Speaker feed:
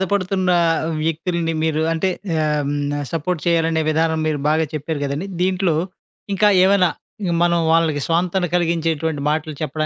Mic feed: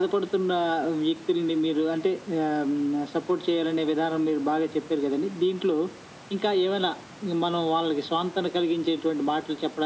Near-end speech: none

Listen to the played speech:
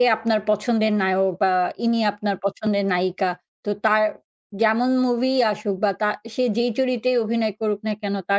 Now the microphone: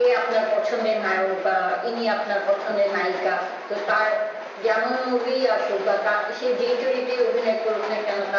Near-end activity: none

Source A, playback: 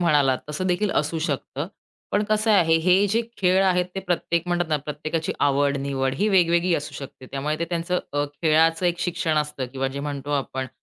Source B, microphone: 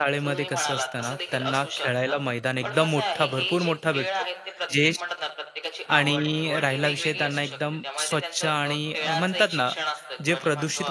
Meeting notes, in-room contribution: present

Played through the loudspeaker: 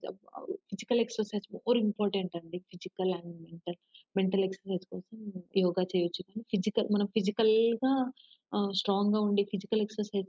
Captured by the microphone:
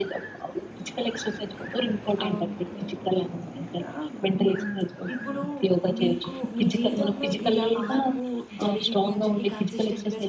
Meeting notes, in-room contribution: present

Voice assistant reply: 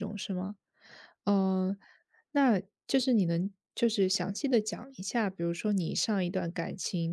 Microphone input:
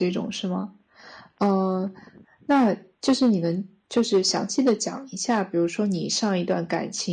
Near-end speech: none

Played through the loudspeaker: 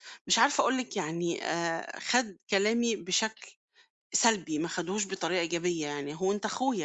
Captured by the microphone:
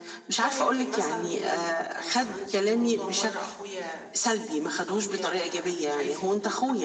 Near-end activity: present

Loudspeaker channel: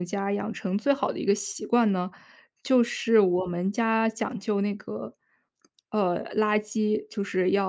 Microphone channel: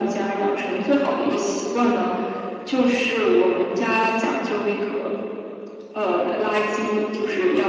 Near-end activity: none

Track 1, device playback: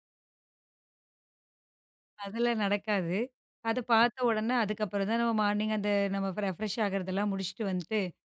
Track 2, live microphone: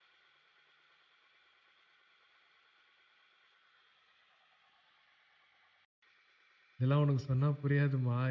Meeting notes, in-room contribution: present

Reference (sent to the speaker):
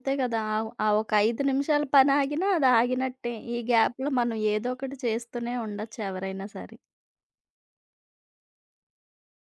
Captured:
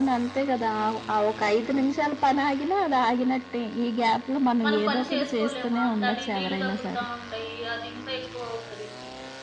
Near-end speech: present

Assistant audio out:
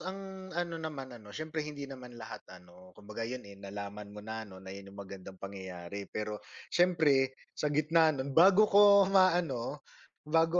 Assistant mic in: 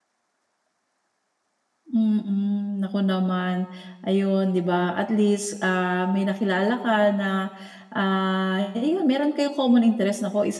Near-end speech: present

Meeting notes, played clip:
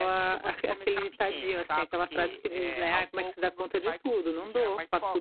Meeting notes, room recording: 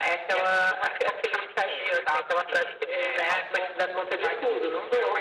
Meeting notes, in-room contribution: none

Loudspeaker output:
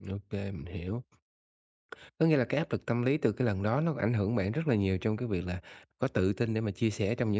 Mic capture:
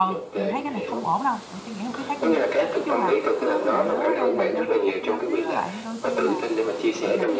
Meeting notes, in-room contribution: present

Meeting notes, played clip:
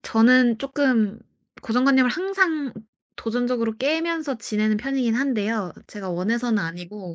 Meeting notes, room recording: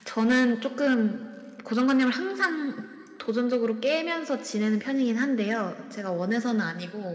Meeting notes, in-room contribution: none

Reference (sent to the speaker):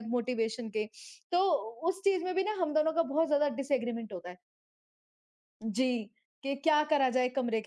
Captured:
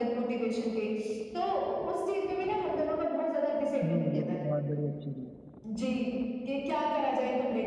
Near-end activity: present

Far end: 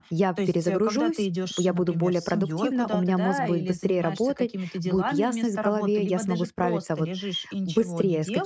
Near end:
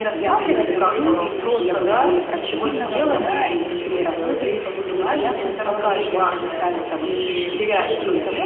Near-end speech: present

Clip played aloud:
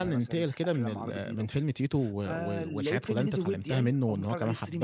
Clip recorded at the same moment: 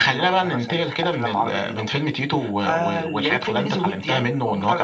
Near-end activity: none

